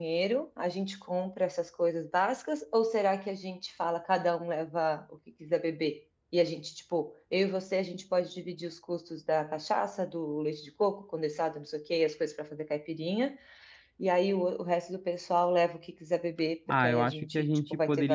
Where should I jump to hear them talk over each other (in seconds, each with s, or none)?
16.7 s